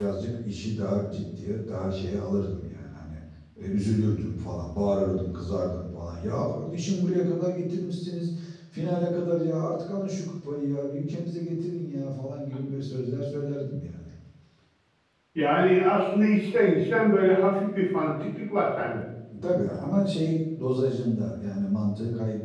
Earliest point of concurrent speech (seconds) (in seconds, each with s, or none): none